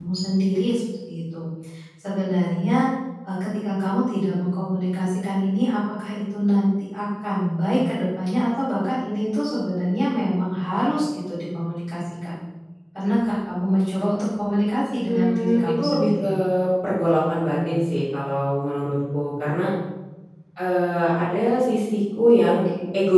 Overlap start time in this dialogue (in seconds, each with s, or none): 15.1 s